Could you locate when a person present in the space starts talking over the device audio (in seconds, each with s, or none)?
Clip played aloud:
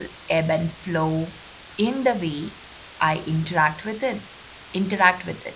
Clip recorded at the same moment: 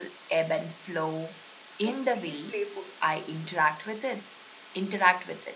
1.8 s